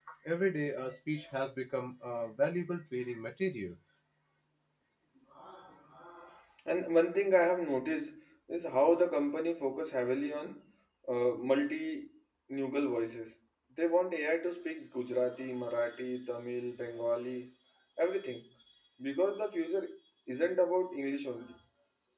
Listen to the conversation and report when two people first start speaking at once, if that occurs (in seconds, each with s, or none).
none